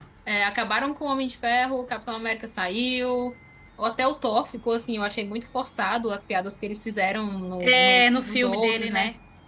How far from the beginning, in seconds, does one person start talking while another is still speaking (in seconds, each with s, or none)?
7.6 s